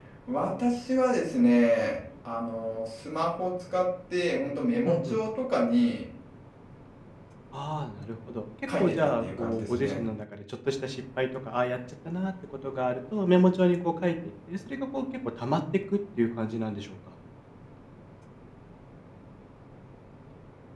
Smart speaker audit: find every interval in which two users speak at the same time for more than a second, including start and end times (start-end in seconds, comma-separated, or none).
8.8-10.0